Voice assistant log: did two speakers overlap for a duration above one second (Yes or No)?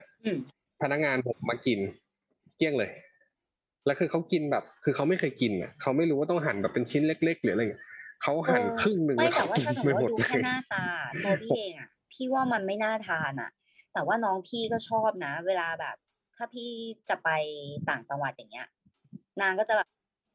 Yes